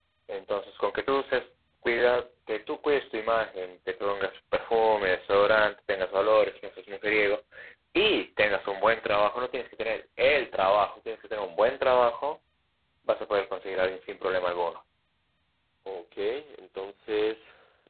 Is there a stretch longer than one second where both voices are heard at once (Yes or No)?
No